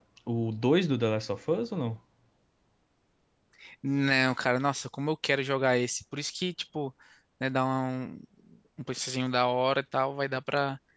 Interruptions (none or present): none